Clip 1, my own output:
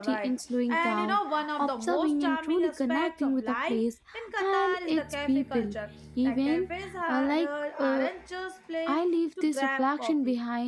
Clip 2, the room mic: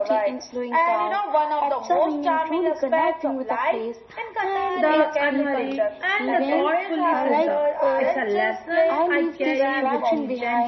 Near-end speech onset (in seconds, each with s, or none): 4.7 s